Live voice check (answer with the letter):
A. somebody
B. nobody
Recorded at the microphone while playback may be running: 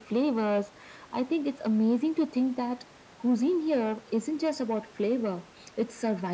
B